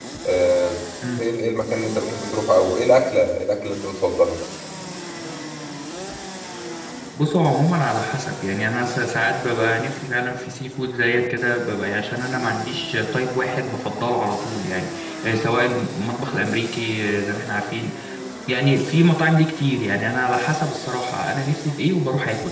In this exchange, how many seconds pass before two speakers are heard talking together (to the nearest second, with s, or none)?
none